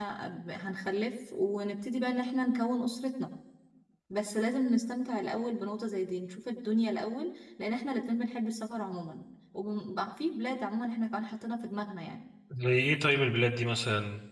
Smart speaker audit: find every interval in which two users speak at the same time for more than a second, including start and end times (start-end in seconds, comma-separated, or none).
none